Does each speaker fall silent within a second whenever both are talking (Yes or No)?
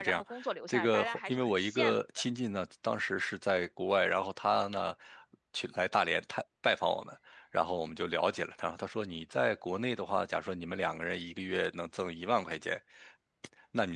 No